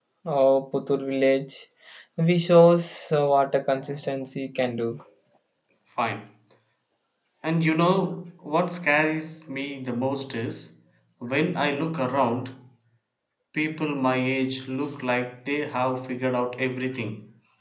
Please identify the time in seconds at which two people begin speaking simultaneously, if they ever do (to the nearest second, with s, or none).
none